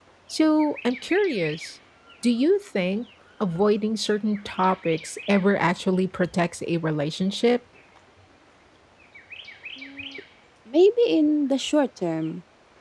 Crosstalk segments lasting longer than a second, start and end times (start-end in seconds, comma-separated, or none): none